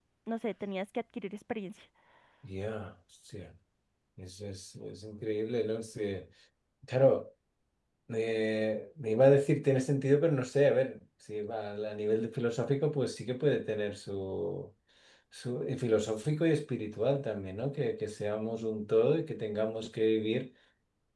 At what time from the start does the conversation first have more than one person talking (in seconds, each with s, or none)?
none